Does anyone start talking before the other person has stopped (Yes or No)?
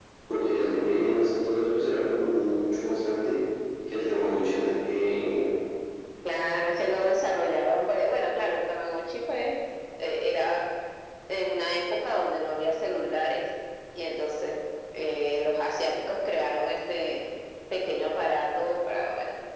No